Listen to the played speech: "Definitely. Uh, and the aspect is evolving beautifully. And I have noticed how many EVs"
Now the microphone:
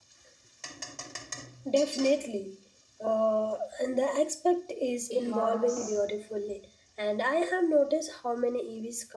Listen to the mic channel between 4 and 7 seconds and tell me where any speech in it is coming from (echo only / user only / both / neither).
both